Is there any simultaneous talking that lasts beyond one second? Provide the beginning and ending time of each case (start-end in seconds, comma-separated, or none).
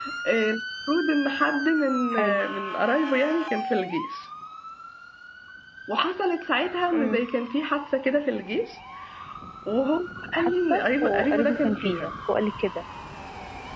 10.3-12.1